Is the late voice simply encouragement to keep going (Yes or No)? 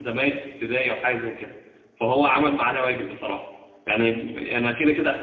Yes